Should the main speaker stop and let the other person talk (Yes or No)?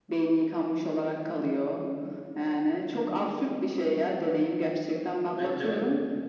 Yes